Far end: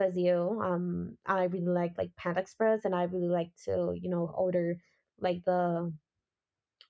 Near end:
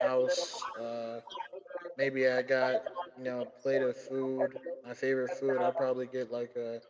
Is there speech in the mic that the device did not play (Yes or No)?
Yes